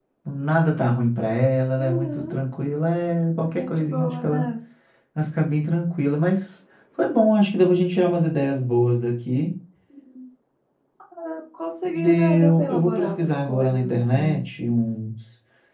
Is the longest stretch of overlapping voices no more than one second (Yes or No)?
No